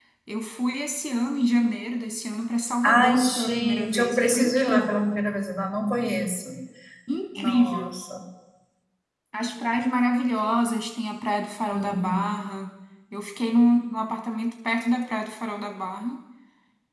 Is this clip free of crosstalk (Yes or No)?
No